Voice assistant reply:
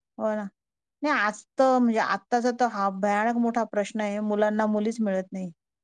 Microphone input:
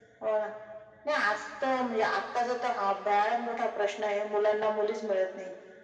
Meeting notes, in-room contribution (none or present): none